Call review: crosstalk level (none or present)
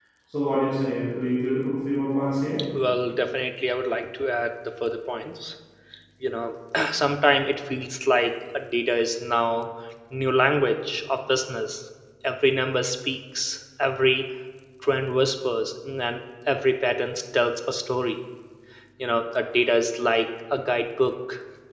none